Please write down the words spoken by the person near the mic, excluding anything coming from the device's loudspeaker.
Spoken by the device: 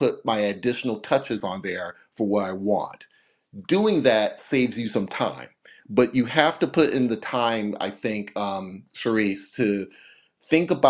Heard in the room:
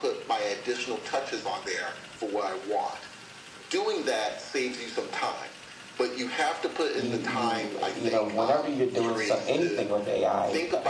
you you you know whenever you're doing so, anything with ai

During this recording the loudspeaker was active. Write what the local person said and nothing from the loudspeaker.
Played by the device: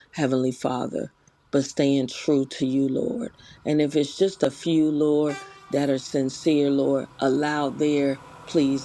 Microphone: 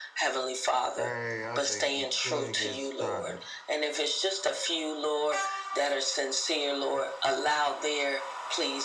Hey, I think we should get started.

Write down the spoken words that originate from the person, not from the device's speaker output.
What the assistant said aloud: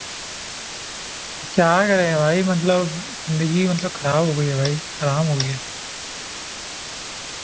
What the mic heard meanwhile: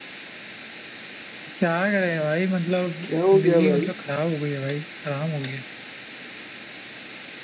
क्या हो गया भाई

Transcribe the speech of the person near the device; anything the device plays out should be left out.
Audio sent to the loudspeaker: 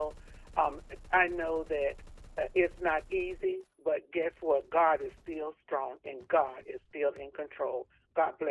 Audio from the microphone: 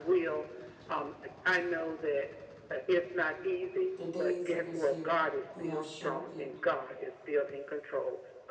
The days of his youth you have shortened.

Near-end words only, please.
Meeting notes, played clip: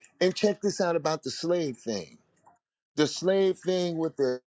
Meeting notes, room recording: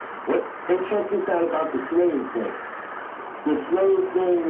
none

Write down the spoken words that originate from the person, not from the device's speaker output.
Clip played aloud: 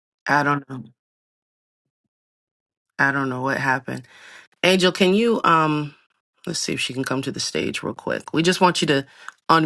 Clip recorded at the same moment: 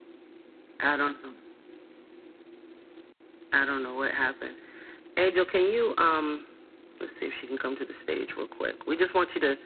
none

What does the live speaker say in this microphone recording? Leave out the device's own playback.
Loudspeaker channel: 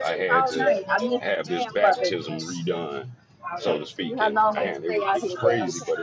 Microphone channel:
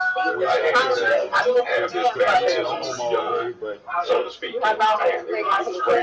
wish I could uh could could be at home all day, but

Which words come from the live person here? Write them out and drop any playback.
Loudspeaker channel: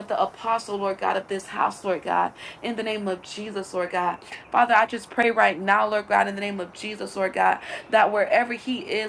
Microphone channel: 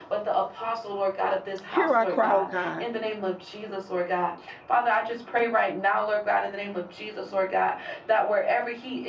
Hear our cry, oh God.

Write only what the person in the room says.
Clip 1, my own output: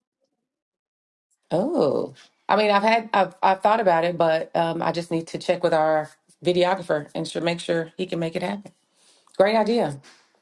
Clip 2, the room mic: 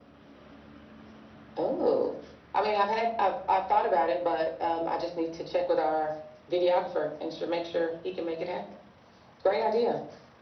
none

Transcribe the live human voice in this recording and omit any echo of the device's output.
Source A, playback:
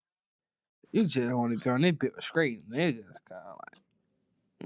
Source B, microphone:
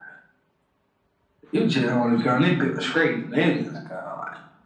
none

